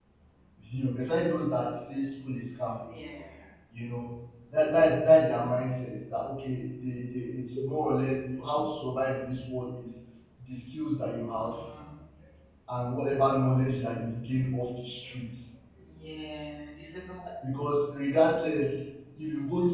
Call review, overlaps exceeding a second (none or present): none